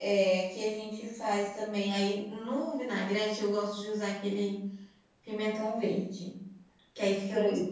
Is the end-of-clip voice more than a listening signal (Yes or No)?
No